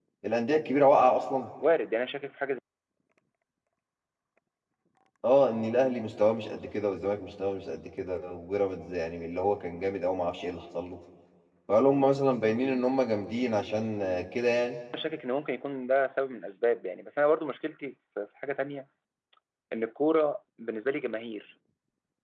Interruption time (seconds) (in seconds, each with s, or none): none